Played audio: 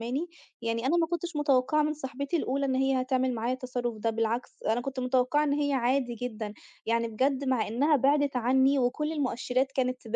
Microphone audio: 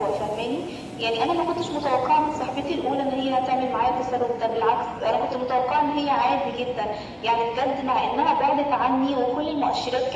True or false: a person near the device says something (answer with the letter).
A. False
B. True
A